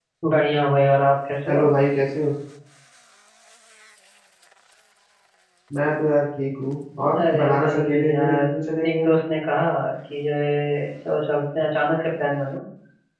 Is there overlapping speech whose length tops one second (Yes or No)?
Yes